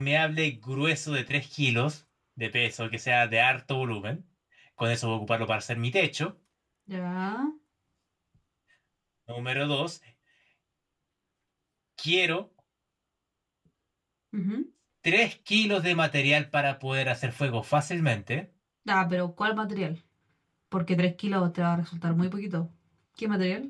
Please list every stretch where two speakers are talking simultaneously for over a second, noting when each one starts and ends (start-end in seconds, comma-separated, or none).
none